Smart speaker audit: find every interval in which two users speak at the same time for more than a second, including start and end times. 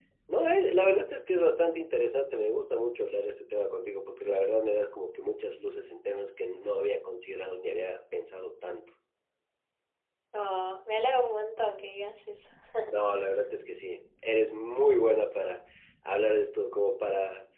none

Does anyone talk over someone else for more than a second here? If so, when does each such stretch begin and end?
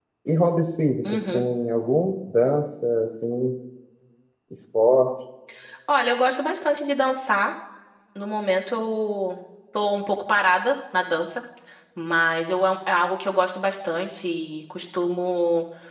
none

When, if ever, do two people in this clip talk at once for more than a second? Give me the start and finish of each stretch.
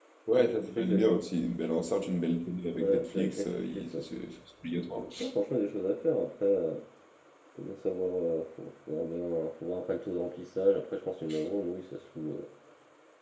2.7-4.0

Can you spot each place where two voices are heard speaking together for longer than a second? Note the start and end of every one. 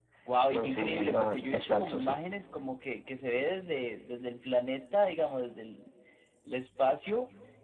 0.5-2.1

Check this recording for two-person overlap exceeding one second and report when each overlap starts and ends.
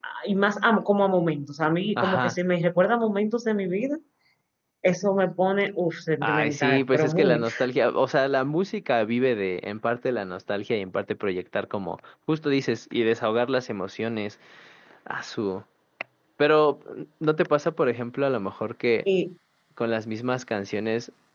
6.2-7.4

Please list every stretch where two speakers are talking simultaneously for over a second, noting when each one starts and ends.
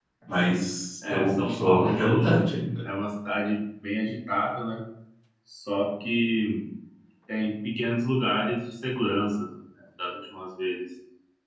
1.1-2.5

